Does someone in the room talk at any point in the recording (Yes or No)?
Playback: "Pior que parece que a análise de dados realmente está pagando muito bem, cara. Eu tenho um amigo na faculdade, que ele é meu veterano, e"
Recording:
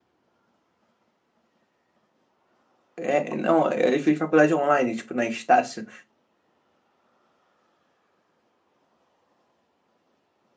Yes